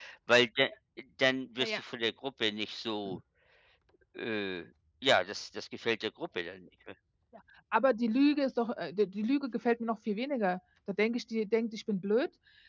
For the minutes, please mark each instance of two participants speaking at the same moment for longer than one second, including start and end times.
none

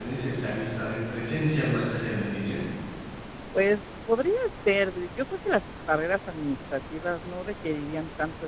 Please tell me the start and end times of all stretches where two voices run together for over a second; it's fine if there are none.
none

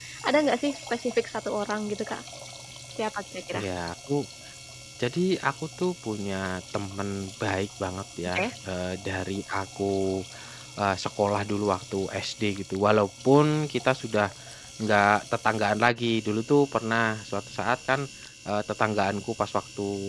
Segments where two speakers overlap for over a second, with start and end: none

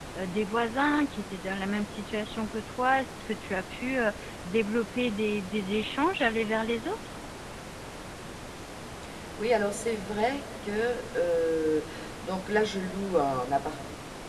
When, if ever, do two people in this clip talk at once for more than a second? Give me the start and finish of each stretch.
none

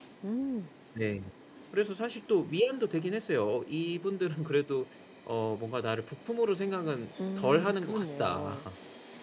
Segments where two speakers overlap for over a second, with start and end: 7.4-8.7

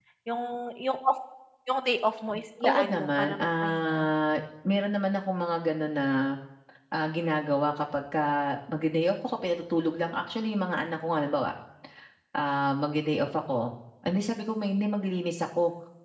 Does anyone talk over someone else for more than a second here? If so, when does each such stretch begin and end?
2.6-4.1

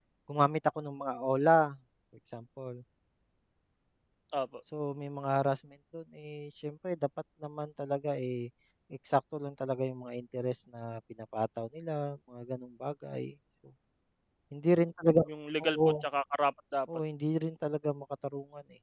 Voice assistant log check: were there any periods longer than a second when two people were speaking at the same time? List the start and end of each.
none

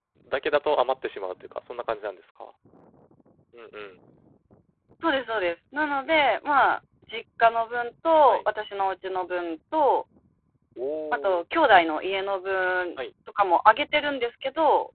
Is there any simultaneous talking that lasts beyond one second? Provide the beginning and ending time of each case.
none

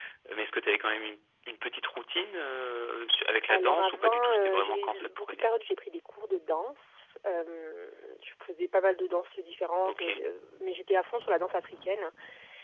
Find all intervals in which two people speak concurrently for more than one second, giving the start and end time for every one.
3.5-5.5

